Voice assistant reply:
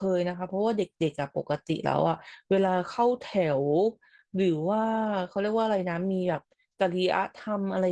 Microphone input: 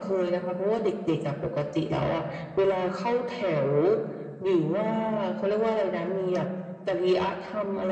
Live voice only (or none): none